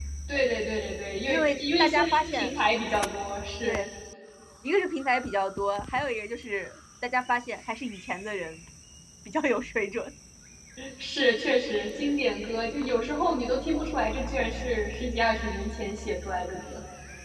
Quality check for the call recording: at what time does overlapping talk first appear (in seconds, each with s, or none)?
1.3 s